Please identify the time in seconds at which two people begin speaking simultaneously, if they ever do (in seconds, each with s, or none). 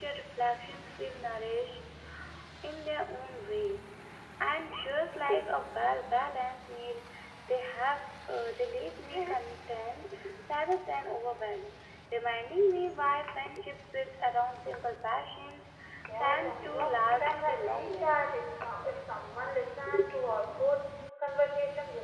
16.2 s